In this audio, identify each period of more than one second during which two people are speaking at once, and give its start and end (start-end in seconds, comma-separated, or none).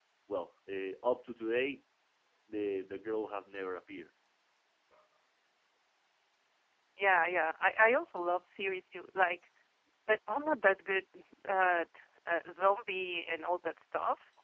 none